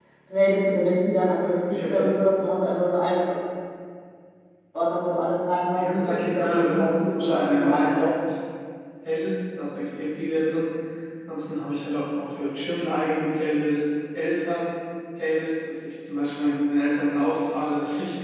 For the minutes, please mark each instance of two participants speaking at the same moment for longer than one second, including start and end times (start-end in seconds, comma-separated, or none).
5.8-8.0